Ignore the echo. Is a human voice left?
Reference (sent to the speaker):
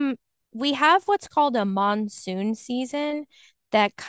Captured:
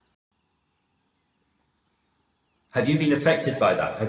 Yes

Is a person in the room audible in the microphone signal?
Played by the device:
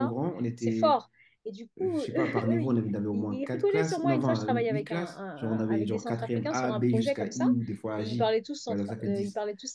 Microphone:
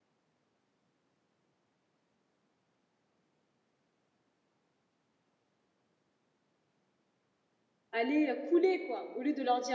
Yes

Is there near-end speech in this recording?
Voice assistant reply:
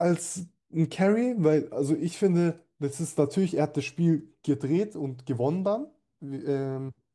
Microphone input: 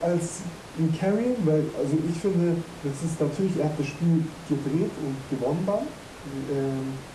No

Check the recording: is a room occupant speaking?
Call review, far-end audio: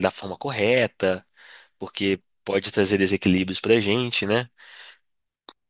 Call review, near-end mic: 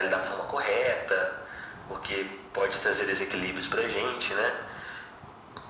No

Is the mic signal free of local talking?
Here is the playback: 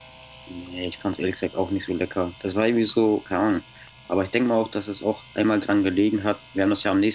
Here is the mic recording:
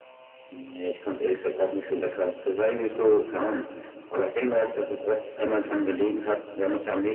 Yes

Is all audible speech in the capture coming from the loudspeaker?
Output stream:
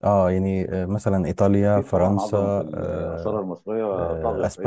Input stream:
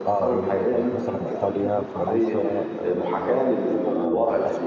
No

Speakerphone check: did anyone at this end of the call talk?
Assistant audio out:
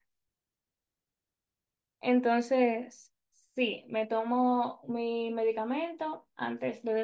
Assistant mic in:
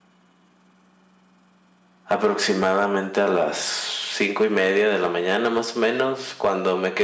Yes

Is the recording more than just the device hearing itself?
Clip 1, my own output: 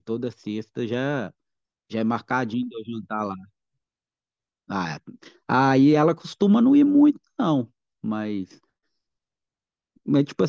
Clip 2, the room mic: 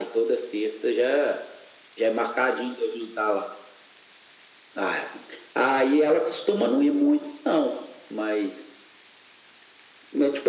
No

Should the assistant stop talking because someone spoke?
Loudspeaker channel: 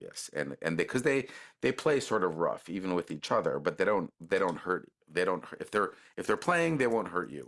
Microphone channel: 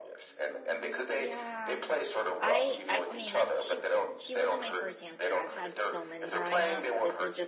Yes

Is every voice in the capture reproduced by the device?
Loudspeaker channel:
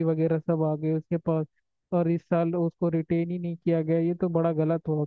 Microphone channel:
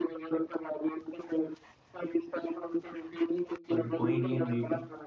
No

